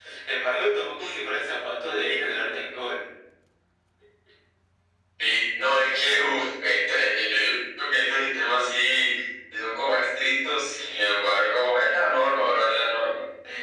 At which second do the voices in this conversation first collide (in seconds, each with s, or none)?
none